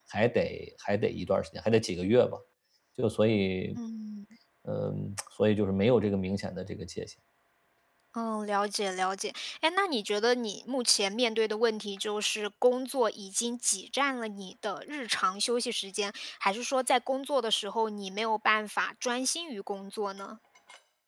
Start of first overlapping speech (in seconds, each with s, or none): none